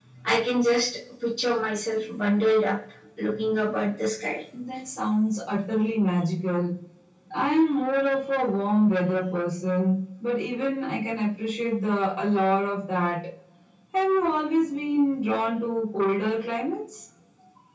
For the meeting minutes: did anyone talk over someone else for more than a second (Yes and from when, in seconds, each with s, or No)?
No